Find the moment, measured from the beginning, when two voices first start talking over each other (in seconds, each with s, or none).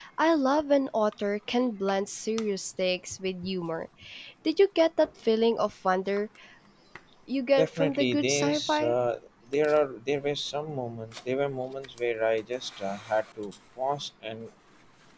7.6 s